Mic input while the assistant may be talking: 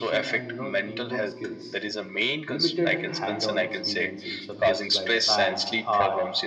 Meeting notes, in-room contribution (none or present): present